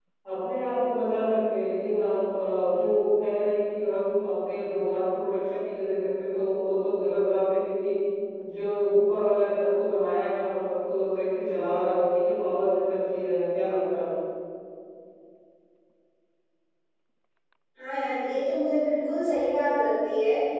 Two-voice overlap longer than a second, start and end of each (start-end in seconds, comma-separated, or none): none